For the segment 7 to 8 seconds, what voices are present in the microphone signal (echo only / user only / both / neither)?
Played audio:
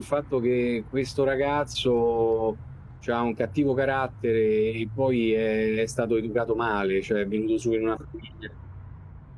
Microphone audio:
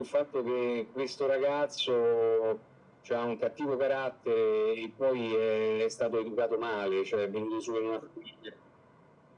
echo only